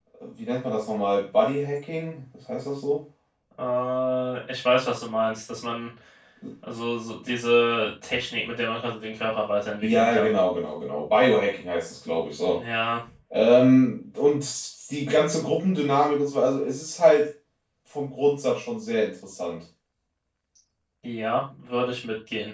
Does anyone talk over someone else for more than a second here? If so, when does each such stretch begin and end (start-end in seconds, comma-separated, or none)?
none